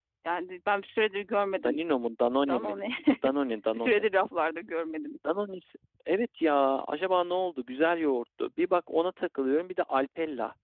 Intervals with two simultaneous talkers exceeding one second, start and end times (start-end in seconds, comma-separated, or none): none